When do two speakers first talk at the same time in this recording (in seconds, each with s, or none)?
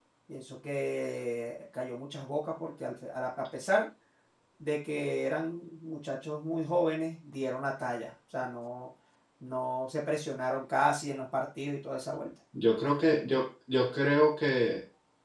none